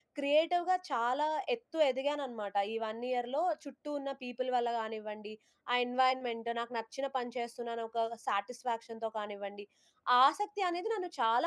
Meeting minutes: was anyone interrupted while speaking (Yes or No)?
No